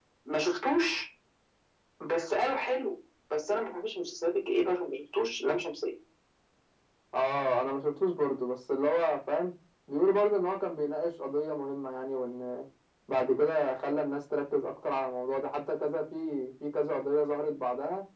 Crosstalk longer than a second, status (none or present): none